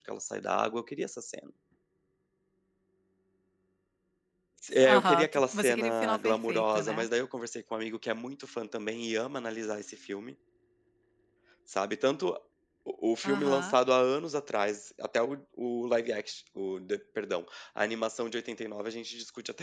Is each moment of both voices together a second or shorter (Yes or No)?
No